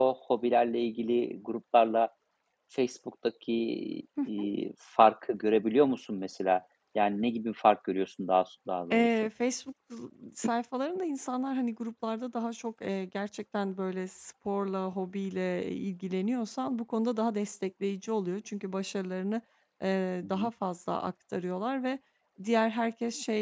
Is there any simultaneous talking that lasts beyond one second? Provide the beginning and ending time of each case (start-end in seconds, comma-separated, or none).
none